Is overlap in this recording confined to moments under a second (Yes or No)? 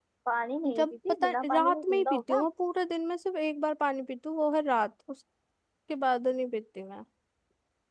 No